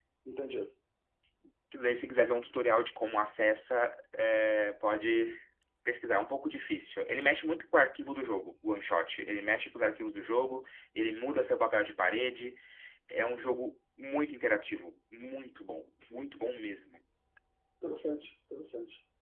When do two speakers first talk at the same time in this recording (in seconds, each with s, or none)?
none